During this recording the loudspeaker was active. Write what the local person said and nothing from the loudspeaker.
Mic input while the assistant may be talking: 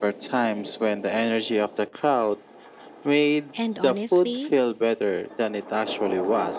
And honestly,

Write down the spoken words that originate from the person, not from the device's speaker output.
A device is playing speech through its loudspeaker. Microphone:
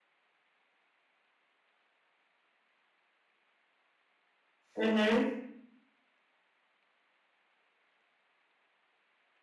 Mm-hmm.

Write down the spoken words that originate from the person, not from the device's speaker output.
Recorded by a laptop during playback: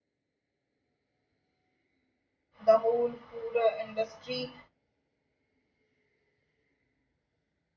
the whole food uh, industry

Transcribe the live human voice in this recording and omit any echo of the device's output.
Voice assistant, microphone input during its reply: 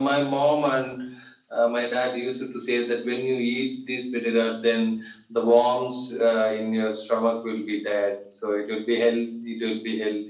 none

